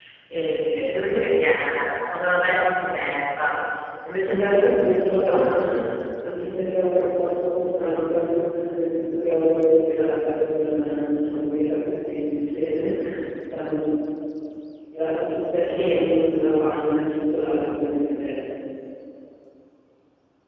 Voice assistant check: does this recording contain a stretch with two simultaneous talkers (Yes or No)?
Yes